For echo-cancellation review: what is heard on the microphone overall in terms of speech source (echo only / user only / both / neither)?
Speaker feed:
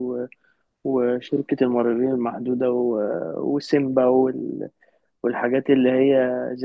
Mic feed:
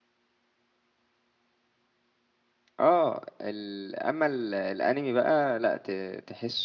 user only